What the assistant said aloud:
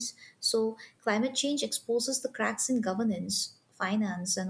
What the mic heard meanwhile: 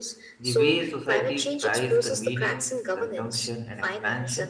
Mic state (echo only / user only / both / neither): both